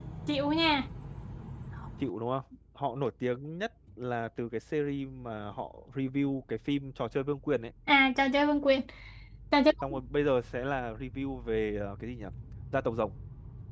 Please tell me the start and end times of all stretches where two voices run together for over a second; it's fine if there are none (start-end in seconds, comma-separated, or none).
none